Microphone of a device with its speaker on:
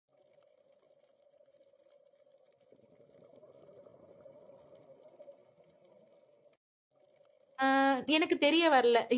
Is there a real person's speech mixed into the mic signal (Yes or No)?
Yes